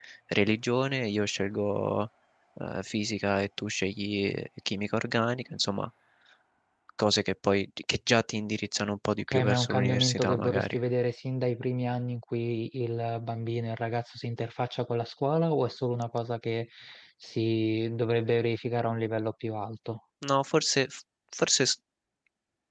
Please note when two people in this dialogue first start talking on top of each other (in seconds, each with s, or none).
9.3 s